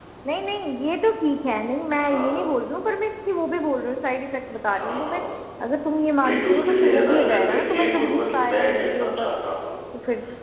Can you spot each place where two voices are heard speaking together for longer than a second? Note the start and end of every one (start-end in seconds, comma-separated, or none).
6.2-9.3